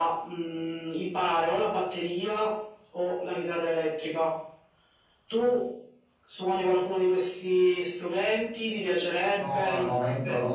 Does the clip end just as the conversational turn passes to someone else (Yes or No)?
Yes